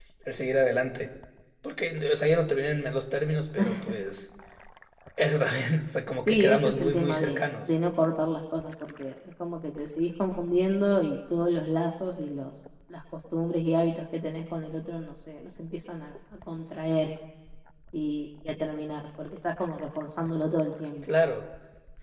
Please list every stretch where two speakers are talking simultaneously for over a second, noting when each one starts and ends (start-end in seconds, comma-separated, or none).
6.3-7.7